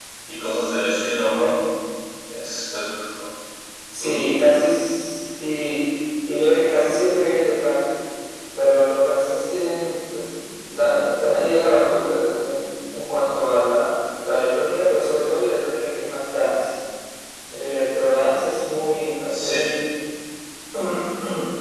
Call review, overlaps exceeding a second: none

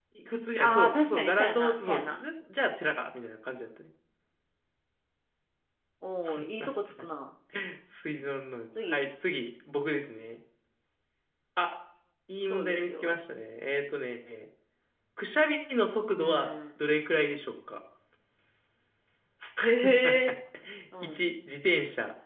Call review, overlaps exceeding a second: present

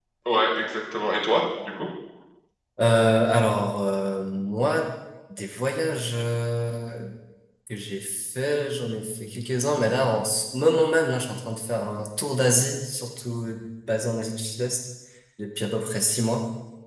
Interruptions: none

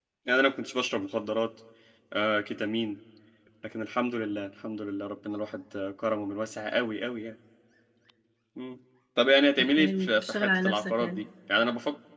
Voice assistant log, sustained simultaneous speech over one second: present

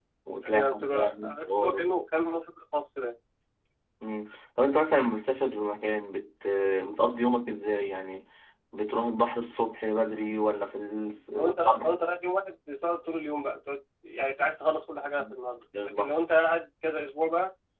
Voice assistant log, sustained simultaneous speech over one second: present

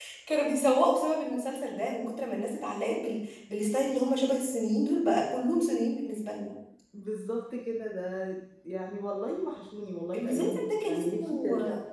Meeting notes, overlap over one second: present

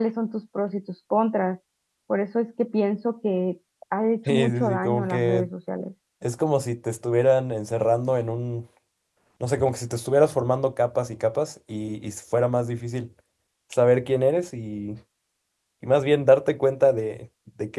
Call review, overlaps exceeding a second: present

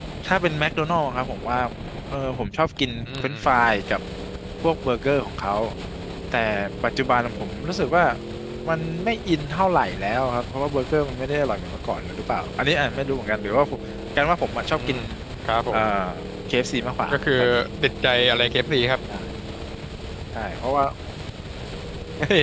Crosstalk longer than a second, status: none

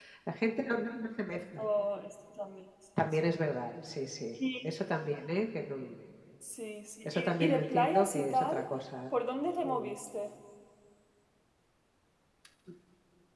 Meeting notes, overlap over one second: present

